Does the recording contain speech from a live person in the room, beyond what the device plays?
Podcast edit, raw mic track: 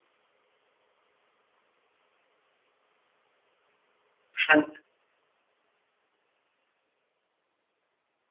Yes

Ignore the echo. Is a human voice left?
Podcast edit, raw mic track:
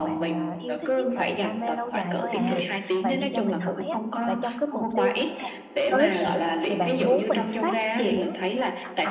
Yes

